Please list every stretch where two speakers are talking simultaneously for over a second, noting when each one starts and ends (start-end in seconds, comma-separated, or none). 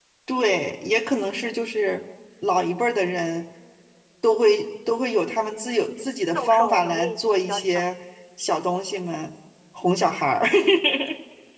6.0-7.9